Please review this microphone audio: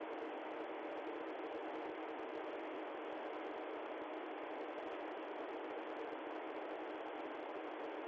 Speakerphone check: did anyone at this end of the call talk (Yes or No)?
No